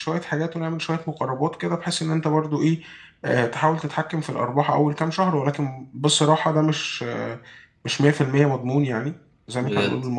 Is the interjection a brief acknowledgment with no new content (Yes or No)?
Yes